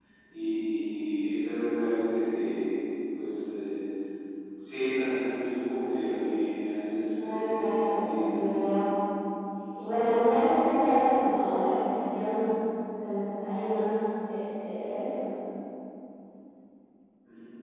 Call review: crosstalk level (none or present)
present